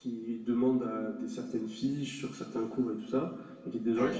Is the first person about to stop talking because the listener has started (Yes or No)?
No